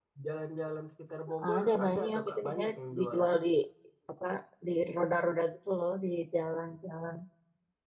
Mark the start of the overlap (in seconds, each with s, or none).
1.4 s